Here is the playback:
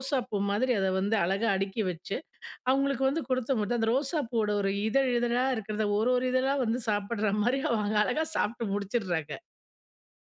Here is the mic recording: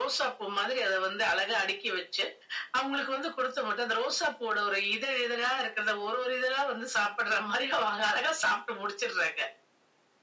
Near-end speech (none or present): none